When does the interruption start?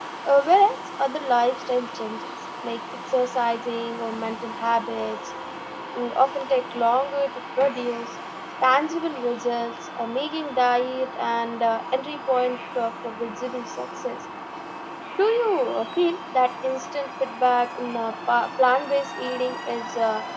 none

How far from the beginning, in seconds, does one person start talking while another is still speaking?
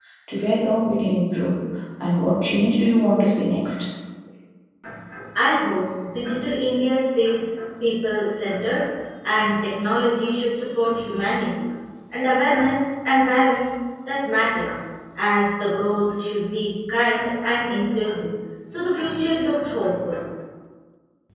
none

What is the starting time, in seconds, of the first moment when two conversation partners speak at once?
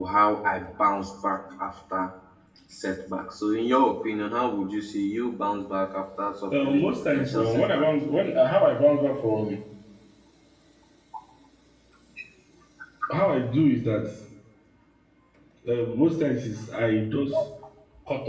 6.5 s

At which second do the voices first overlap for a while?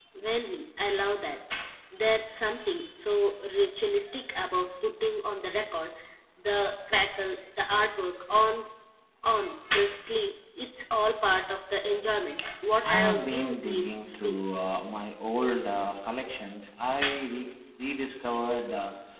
12.8 s

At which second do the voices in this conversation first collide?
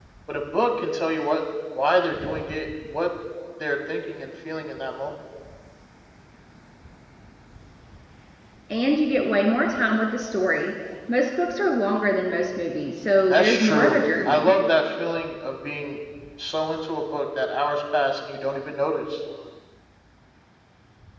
13.3 s

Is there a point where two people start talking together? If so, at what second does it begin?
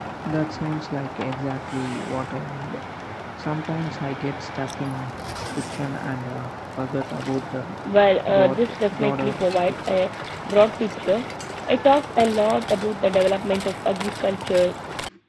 8.3 s

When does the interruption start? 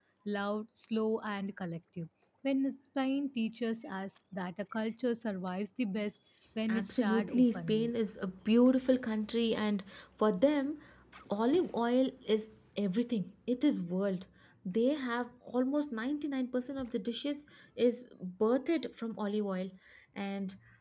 6.7 s

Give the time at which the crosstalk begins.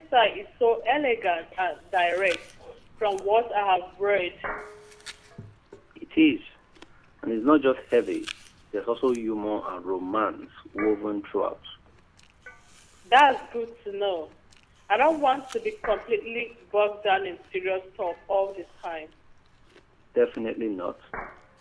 none

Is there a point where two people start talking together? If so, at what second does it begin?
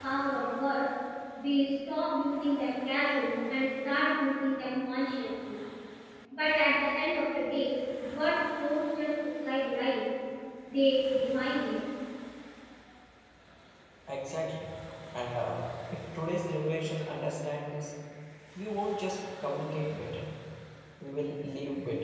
none

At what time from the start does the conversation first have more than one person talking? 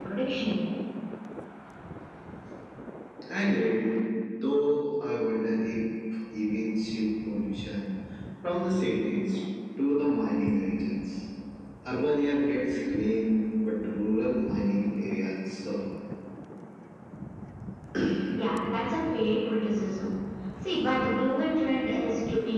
none

